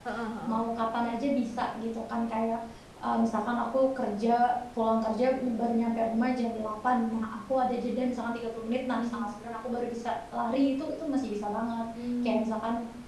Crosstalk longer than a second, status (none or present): none